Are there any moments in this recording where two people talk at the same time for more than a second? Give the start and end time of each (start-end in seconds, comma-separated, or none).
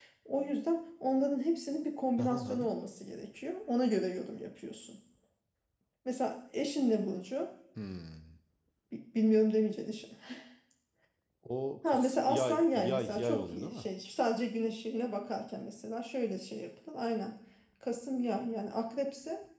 11.9-13.8